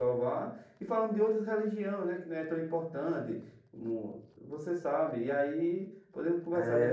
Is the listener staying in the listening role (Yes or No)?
No